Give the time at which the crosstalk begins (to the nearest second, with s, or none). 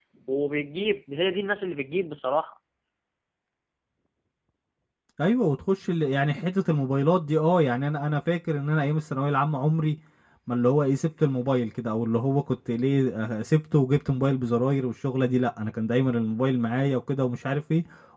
none